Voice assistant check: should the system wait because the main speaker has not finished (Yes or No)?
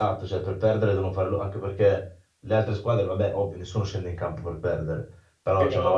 Yes